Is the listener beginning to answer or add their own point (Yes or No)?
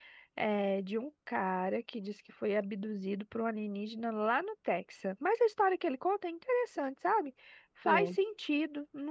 No